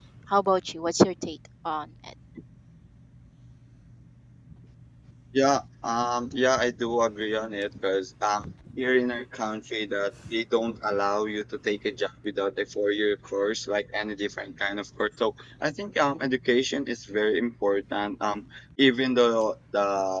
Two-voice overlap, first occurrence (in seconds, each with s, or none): none